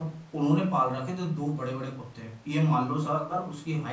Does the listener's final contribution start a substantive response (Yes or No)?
No